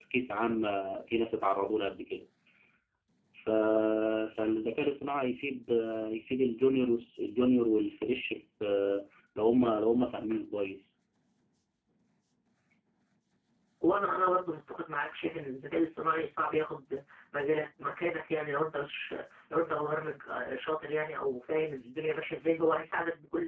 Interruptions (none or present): none